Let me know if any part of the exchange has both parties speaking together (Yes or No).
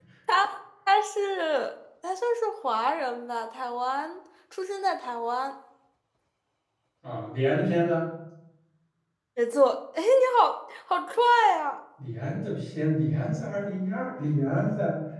No